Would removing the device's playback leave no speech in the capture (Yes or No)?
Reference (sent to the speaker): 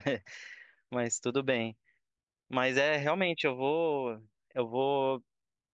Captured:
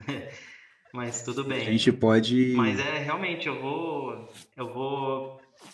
No